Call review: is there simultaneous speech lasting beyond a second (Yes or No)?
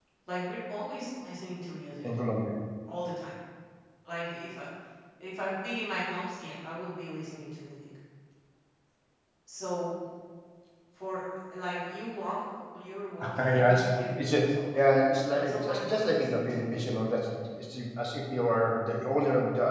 Yes